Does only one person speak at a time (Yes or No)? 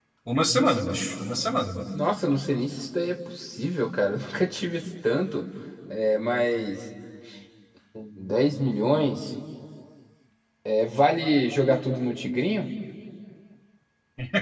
Yes